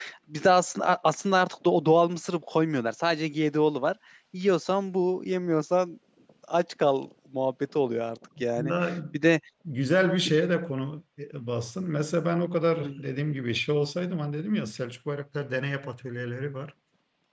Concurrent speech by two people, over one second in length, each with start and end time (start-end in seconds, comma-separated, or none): none